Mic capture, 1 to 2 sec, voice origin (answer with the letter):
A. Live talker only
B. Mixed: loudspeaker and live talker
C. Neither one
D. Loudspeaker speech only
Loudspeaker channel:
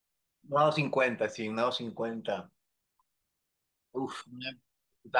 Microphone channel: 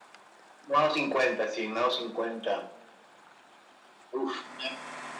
D